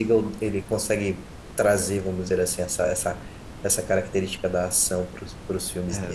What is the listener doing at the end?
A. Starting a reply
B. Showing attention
A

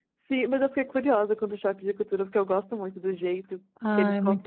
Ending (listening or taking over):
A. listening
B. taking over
B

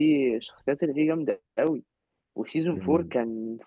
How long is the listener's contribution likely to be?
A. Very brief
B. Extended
A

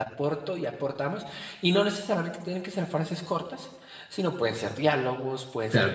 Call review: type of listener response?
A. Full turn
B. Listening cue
A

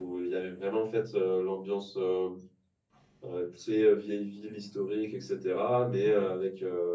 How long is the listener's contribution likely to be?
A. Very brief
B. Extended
A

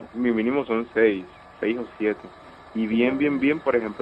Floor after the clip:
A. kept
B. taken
A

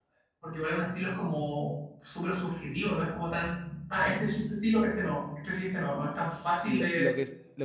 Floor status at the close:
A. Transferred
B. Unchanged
A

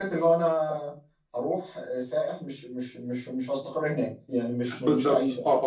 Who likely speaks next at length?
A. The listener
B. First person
A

